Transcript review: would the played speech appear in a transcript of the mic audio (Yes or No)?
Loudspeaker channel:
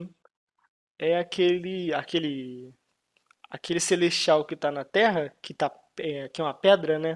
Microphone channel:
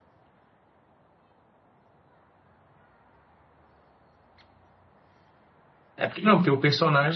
No